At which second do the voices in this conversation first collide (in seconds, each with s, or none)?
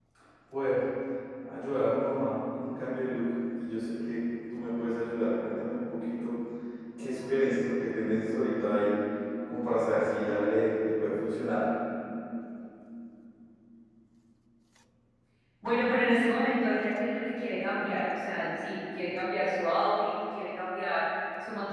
none